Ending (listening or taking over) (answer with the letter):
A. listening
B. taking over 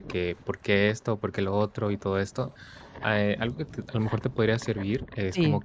A